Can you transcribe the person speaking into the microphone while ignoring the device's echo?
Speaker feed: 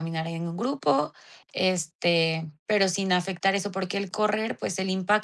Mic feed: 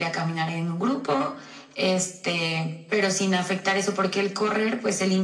none

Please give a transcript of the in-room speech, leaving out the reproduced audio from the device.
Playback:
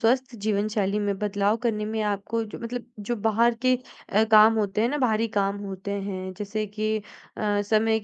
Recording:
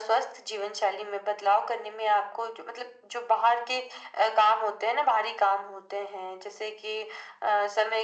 none

